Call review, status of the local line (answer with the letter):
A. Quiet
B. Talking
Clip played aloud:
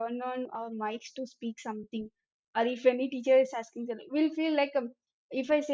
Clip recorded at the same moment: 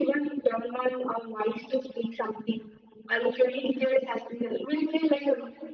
A